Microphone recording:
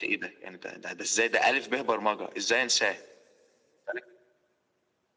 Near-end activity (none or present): none